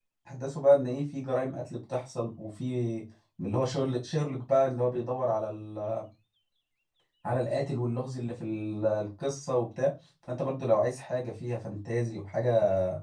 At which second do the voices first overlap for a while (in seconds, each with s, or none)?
none